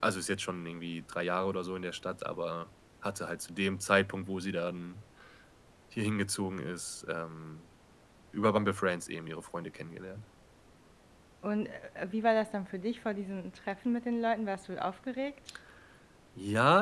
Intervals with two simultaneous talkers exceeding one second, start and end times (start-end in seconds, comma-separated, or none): none